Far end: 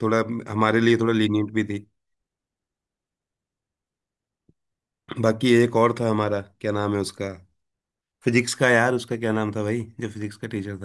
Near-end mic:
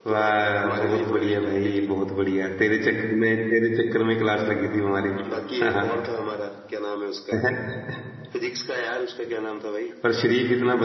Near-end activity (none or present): present